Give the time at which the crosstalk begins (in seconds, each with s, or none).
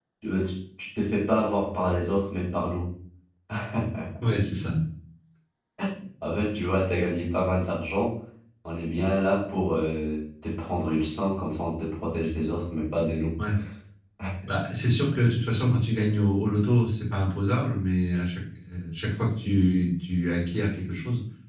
none